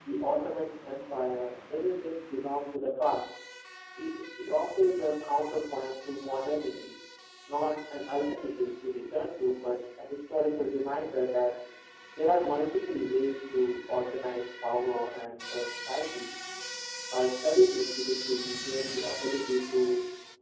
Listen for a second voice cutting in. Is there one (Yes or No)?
No